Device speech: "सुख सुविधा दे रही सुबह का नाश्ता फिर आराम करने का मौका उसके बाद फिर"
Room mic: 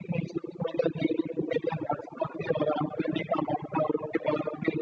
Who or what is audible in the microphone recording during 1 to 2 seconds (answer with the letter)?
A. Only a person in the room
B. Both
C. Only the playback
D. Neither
C